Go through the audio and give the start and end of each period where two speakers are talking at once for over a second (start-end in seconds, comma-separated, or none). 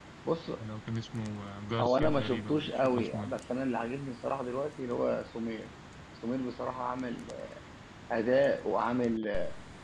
1.8-3.4